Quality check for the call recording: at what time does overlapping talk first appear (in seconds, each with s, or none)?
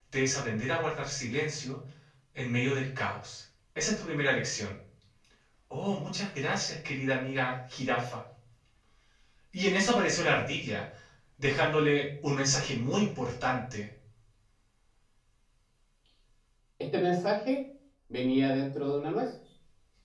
none